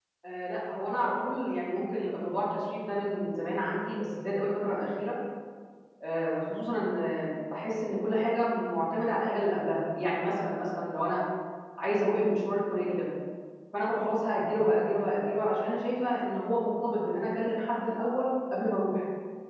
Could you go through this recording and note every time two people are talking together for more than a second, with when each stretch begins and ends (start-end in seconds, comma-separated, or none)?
none